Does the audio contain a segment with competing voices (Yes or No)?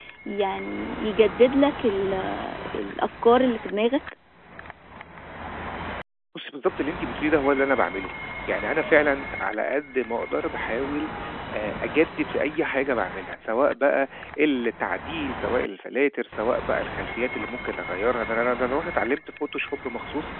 No